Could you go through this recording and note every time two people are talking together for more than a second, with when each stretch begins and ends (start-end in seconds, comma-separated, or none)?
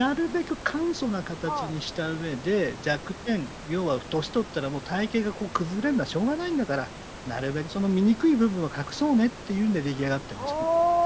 none